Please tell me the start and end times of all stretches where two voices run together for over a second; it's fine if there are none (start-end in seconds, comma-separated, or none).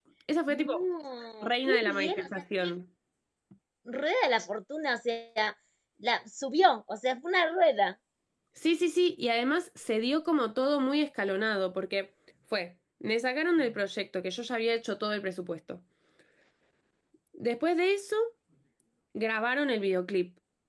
1.4-2.7